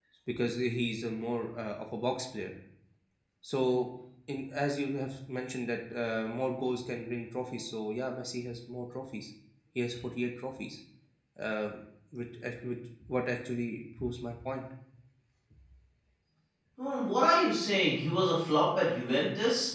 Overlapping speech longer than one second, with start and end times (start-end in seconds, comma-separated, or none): none